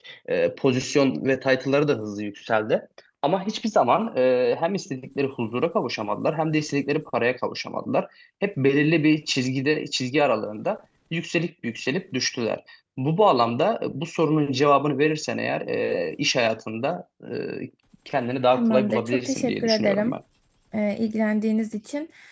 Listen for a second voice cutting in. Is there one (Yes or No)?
Yes